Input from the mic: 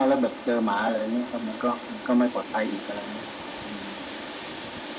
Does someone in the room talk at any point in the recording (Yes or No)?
No